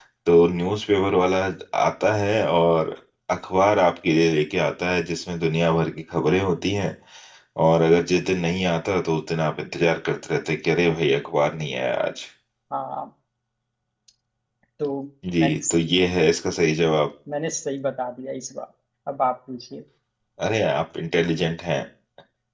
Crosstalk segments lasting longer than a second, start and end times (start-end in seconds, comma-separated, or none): none